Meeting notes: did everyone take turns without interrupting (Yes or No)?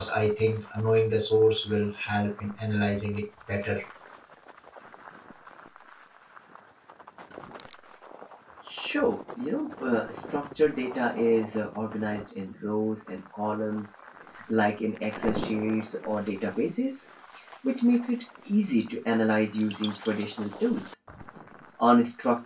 Yes